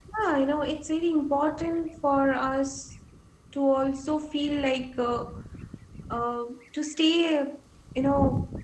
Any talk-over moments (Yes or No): No